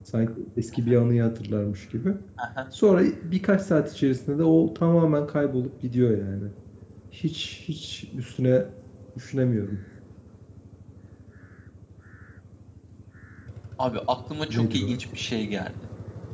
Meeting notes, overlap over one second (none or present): none